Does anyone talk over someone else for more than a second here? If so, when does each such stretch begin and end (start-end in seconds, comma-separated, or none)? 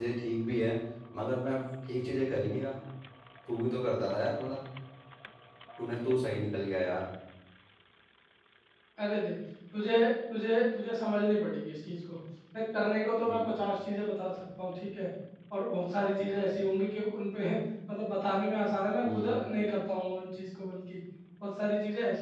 none